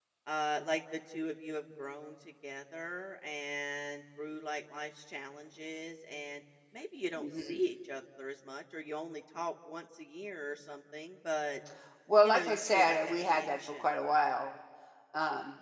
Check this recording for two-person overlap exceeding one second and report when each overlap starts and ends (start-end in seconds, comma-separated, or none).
12.2-13.8